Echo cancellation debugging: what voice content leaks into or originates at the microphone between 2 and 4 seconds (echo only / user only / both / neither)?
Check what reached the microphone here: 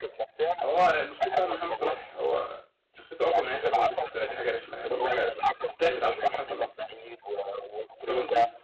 both